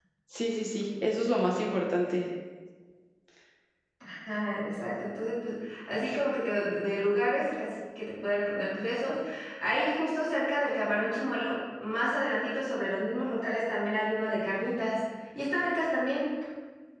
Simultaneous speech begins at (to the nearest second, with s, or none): none